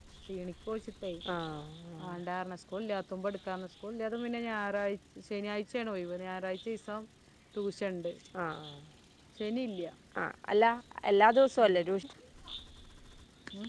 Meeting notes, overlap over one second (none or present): none